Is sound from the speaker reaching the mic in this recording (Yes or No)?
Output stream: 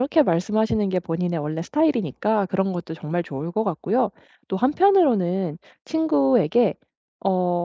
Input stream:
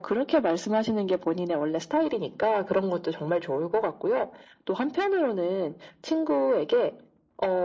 Yes